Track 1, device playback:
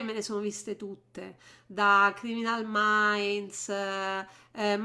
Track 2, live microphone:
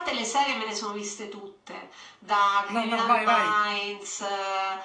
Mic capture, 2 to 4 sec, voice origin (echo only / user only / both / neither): both